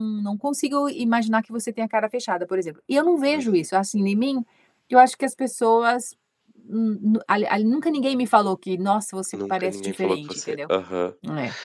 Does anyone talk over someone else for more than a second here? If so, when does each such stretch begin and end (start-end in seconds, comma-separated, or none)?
9.3-10.6